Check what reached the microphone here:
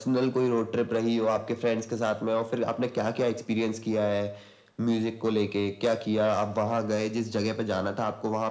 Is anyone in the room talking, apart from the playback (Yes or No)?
No